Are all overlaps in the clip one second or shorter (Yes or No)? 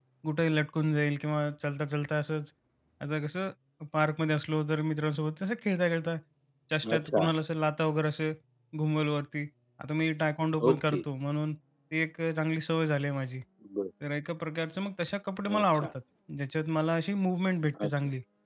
Yes